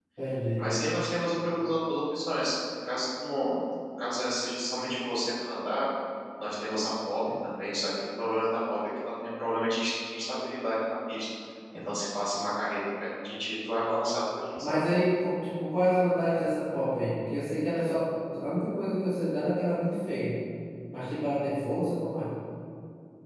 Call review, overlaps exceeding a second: none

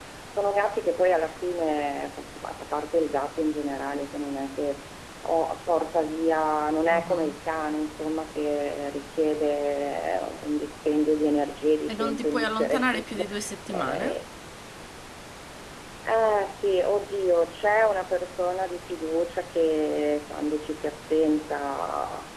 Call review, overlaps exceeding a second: present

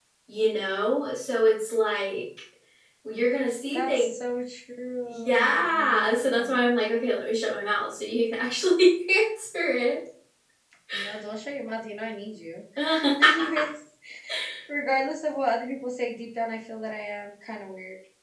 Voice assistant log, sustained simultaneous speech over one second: present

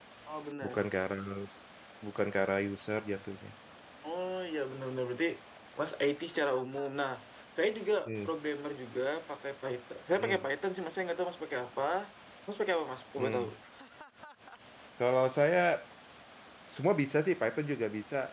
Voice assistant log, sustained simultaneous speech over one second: none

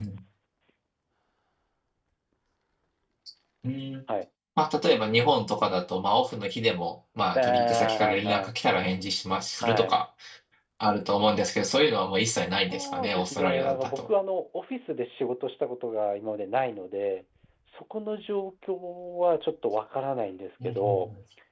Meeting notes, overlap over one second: present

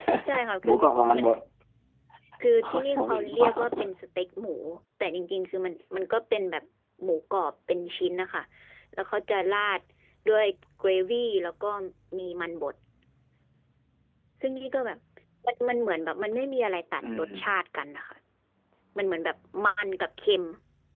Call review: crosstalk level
present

